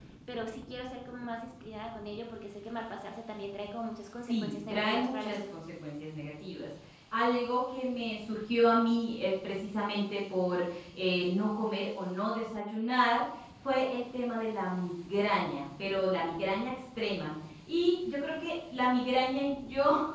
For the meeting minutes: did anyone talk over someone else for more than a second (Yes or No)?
Yes